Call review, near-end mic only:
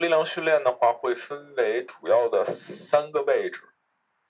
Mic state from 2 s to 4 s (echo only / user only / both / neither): echo only